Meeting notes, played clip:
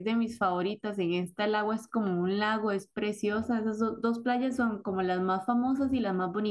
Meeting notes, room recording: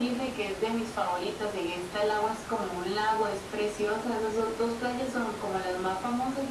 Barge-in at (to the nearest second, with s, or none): none